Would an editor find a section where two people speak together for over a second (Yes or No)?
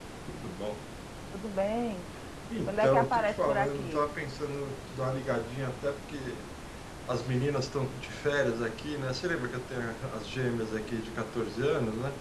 Yes